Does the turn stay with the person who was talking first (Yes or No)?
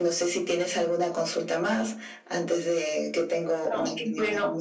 No